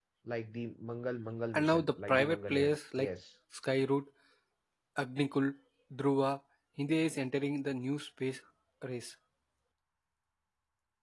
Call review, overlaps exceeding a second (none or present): present